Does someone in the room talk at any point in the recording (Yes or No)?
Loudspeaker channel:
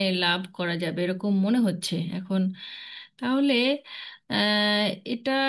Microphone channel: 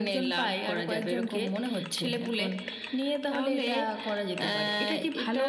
Yes